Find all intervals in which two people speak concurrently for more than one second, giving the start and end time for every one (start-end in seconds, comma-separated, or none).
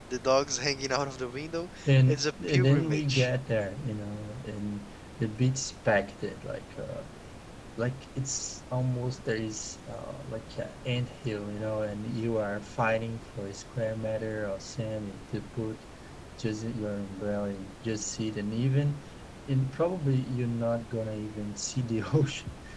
1.9-3.3